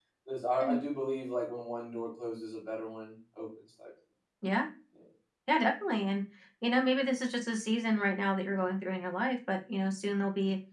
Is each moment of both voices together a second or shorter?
Yes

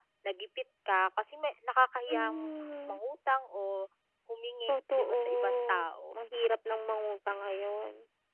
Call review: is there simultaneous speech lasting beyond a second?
Yes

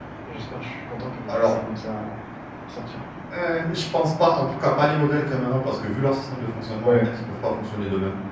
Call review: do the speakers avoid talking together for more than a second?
Yes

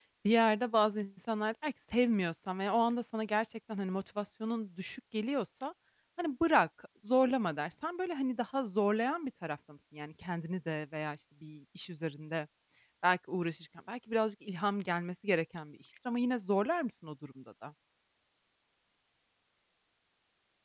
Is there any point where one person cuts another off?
No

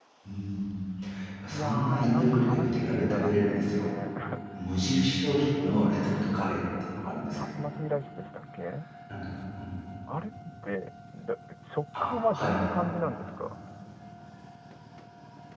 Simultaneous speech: Yes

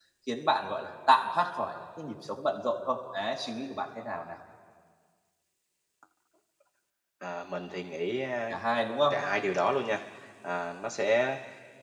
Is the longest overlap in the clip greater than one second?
No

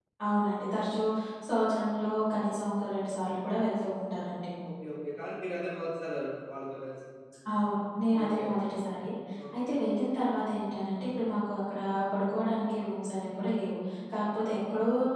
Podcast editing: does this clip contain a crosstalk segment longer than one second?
No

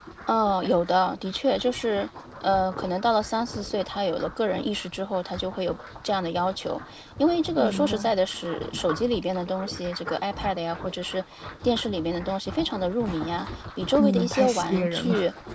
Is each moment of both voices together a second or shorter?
No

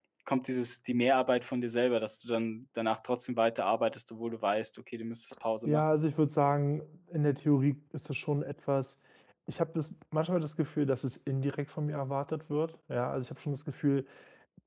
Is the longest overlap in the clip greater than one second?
No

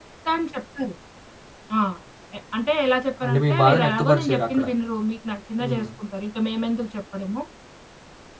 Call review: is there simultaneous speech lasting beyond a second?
Yes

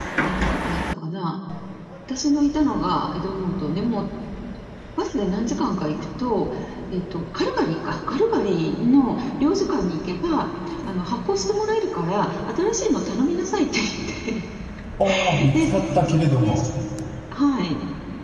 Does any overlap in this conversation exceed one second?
Yes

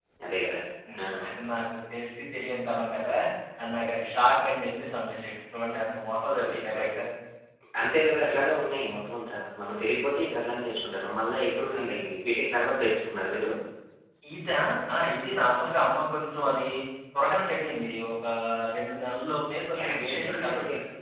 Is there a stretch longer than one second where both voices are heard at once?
Yes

